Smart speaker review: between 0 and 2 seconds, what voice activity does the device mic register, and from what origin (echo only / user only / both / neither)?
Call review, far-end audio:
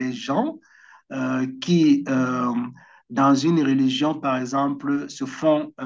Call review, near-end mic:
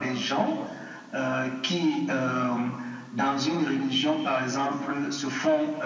echo only